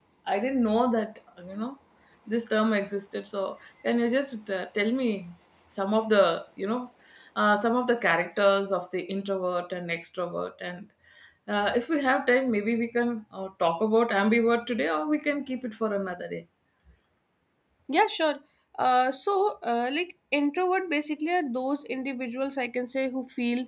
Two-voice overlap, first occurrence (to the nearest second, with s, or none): none